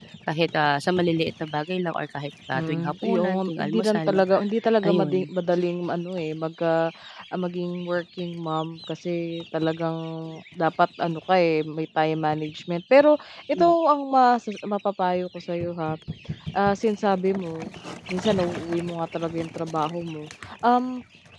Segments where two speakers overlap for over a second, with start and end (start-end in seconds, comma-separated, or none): 2.5-4.2